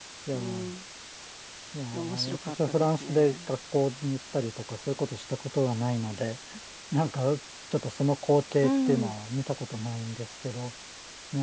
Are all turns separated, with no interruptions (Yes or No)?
No